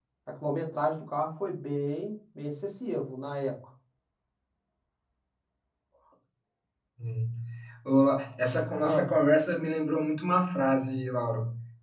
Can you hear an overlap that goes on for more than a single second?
No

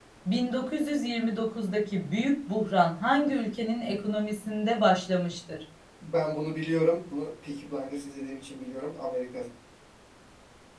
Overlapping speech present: No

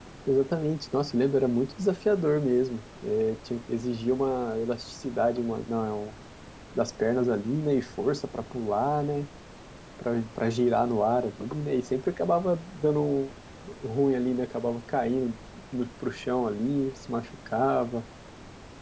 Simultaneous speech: No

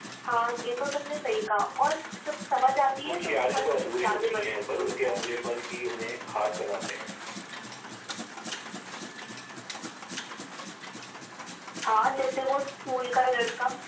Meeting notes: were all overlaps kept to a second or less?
No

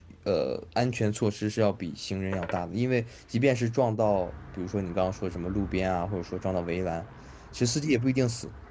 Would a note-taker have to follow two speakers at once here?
No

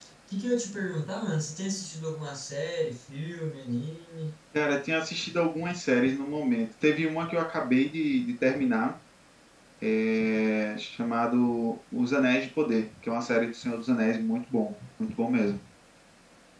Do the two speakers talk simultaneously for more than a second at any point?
No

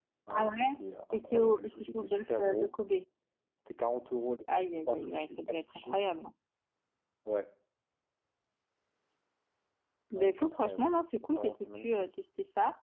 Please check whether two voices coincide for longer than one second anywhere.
Yes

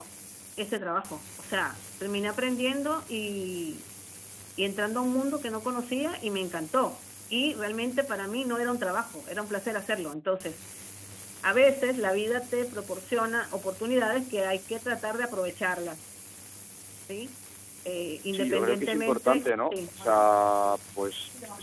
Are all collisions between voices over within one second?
No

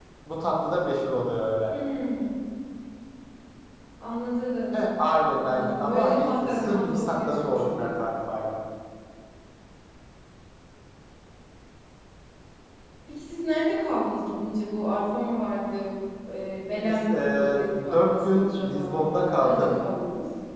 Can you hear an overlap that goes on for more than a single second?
Yes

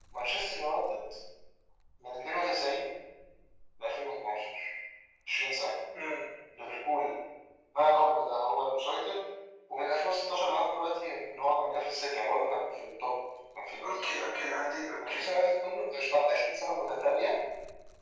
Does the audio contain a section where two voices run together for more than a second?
No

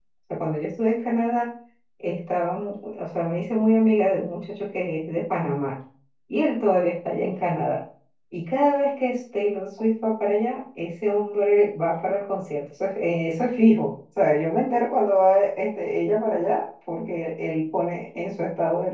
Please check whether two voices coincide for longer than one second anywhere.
No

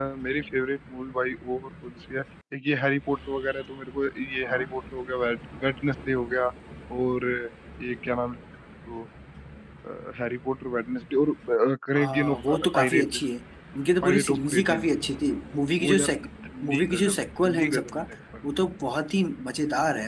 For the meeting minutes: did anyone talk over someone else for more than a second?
Yes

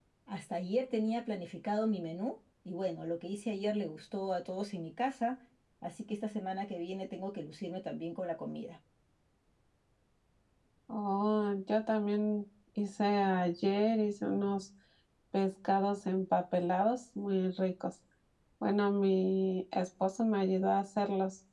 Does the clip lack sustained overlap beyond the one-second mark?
Yes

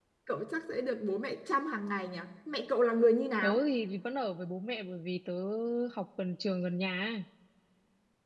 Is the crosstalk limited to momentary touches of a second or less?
Yes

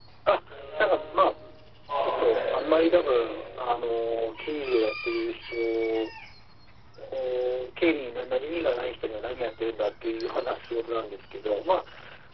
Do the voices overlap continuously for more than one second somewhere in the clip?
Yes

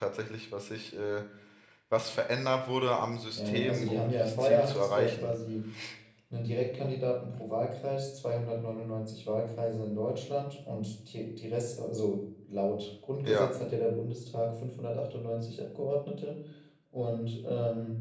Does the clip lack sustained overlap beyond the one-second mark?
No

